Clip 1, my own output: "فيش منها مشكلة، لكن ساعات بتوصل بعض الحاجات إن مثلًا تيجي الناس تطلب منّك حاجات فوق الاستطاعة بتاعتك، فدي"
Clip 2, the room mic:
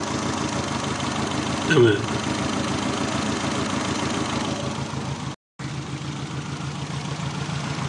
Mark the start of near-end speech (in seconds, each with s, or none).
1.7 s